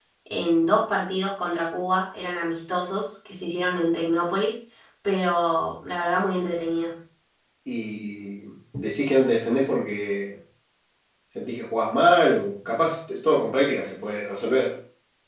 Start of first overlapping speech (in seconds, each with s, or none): none